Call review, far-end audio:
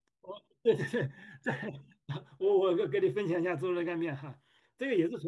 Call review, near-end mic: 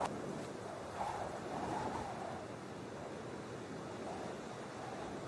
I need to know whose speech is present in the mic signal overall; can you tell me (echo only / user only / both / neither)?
neither